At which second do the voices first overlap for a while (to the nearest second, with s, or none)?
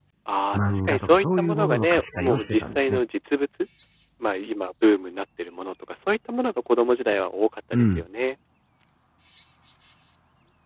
1 s